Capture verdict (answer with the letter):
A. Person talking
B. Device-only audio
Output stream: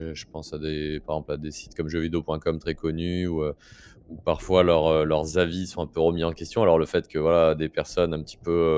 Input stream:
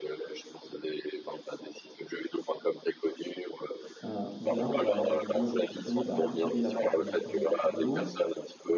A